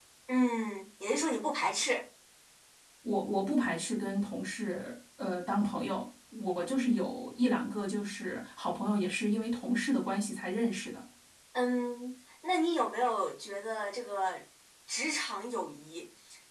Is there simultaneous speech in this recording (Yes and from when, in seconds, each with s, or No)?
No